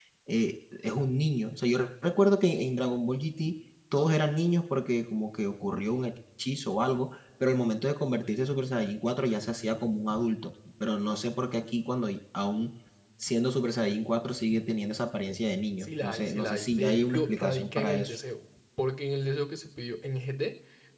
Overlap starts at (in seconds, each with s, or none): 15.8 s